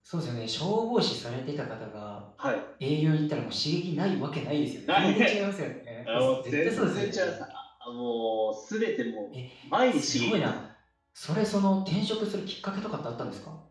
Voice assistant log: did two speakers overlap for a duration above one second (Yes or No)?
Yes